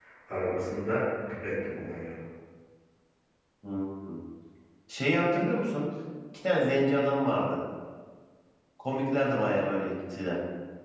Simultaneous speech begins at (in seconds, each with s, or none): none